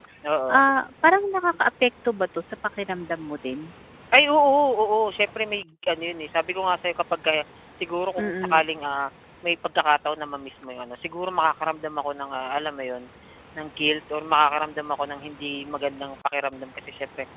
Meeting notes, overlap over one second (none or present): none